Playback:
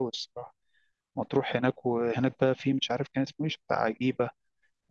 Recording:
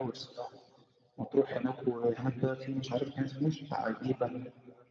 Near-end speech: none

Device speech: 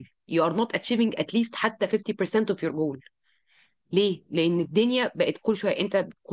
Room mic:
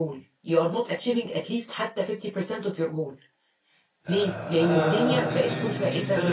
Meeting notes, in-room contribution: present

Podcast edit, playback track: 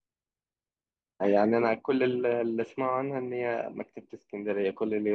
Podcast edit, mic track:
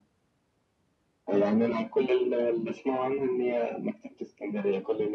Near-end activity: none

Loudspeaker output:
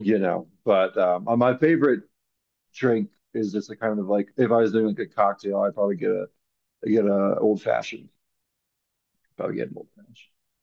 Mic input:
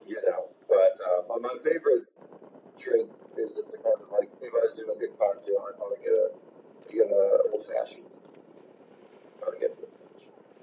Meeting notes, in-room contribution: none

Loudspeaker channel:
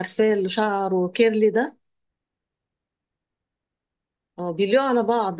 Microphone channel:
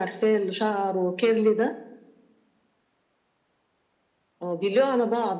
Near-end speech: none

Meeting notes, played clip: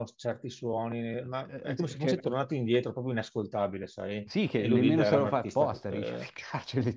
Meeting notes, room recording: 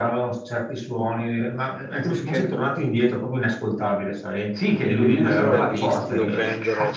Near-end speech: present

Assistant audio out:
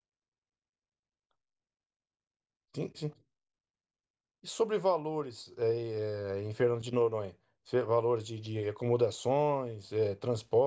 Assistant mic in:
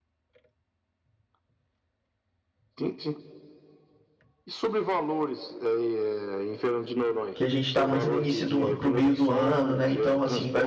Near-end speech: present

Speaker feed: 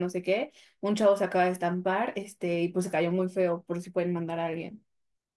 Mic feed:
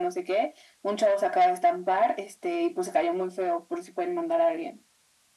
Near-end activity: none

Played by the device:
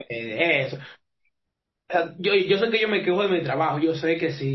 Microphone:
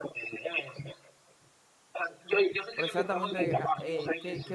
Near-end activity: present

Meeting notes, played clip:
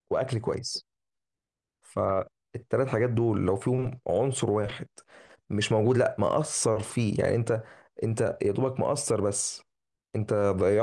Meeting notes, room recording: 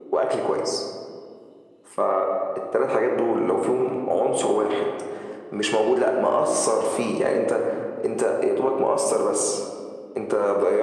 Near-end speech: none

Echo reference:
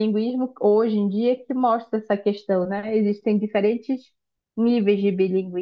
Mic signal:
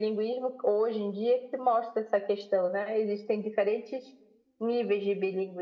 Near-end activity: none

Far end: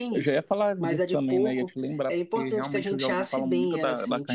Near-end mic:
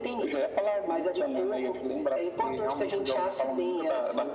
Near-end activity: none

